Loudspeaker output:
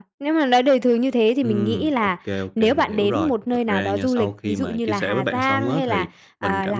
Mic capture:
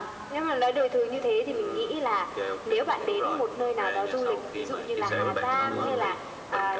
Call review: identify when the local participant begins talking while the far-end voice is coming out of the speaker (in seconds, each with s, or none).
5.0 s